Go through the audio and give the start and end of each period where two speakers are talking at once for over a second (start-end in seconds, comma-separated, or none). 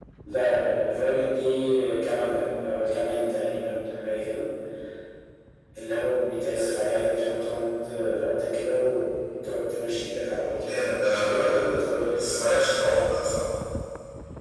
10.6-12.2